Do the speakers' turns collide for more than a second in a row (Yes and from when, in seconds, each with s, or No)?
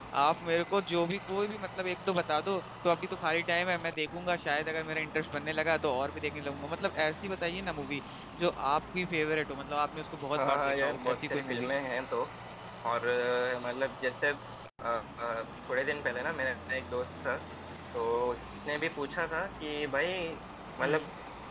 Yes, from 10.4 s